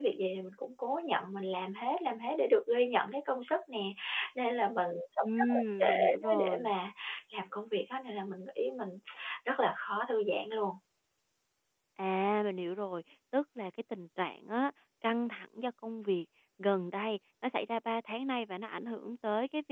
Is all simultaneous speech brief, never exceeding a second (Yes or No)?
No